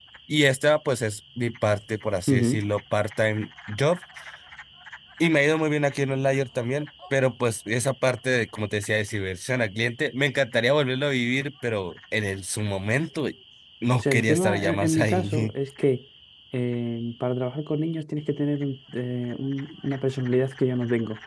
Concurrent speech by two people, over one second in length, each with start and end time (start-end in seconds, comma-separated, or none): 13.9-15.5